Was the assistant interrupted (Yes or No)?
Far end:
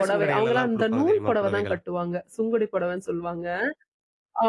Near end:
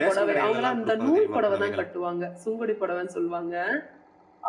No